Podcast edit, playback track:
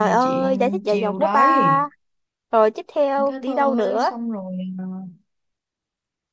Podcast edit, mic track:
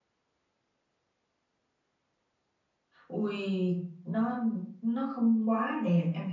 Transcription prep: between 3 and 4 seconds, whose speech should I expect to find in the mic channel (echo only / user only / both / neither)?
user only